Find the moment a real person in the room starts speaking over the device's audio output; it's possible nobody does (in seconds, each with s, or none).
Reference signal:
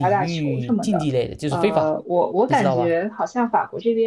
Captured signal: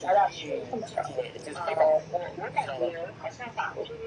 none